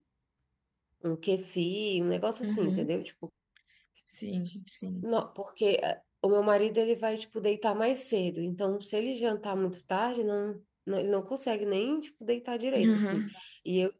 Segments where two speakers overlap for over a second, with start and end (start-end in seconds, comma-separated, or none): none